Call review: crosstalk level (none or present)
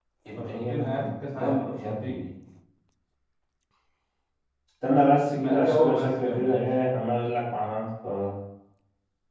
present